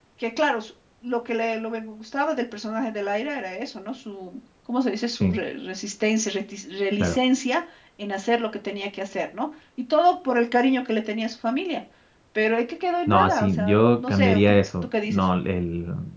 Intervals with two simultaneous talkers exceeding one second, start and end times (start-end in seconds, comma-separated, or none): 13.1-15.2